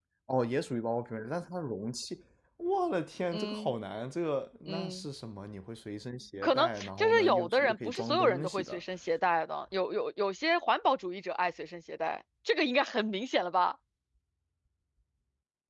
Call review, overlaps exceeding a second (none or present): present